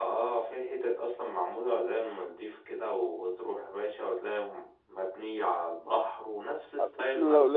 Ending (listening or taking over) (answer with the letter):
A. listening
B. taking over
B